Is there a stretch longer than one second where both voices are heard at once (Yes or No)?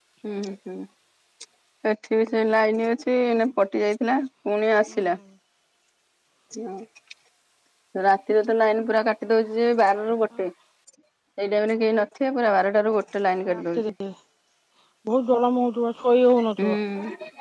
No